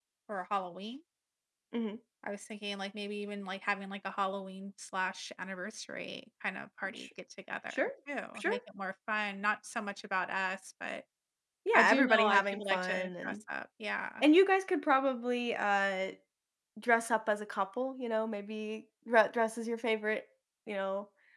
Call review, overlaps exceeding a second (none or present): present